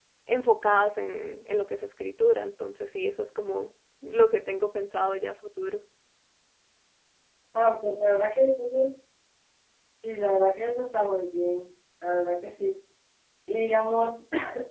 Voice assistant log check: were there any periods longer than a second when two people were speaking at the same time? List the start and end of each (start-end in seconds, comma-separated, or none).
none